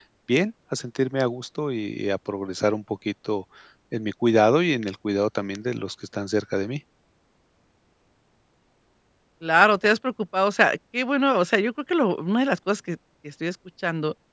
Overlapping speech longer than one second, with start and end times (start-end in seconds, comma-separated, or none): none